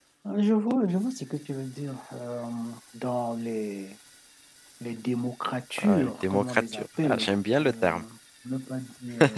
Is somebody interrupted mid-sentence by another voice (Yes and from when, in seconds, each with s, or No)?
Yes, from 5.8 s